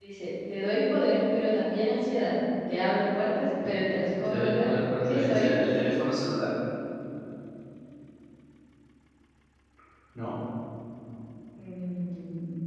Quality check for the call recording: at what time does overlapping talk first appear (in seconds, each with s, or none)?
4.2 s